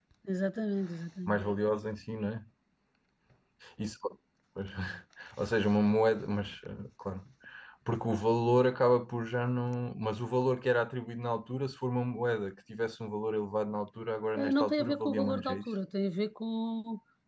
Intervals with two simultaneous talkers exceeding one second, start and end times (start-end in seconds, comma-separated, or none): 14.3-15.6